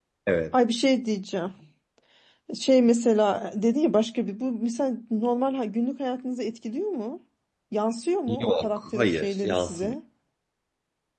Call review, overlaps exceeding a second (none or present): present